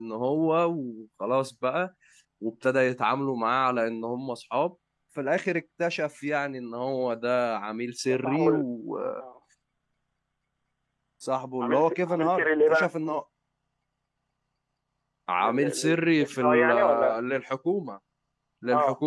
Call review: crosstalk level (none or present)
present